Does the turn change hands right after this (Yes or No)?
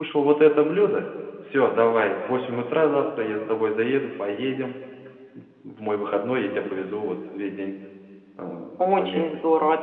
Yes